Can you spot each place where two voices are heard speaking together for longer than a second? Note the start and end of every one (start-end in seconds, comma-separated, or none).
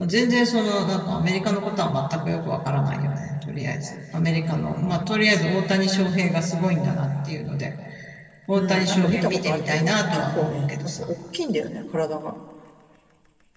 8.6-11.1